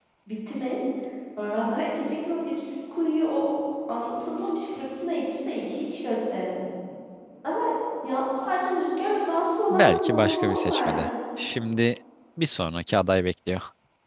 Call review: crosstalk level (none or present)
present